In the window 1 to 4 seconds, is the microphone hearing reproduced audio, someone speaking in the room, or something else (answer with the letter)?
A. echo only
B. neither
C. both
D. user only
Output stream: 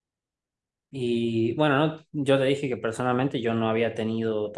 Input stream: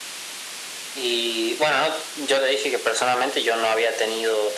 A